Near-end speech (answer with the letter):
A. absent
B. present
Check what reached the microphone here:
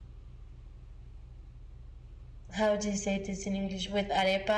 B